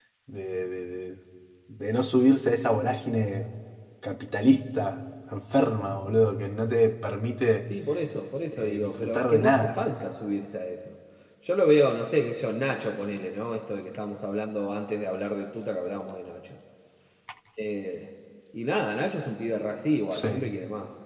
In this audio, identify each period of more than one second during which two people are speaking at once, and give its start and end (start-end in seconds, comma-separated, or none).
8.5-9.8